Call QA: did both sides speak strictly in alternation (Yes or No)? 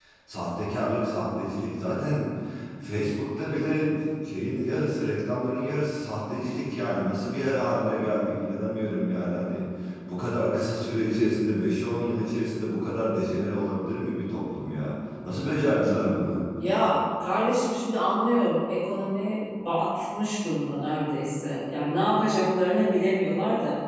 Yes